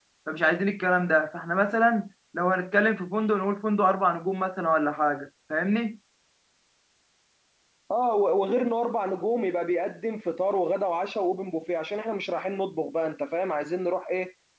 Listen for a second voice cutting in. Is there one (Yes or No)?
No